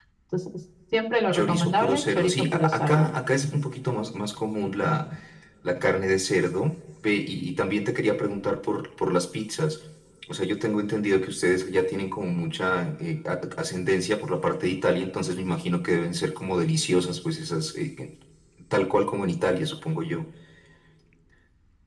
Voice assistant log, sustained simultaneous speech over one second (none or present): present